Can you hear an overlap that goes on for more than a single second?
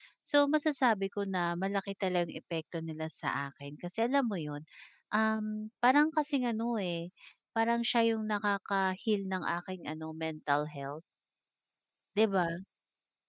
No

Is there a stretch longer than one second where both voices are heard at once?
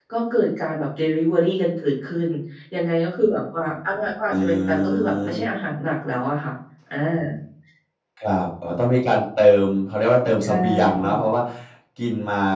Yes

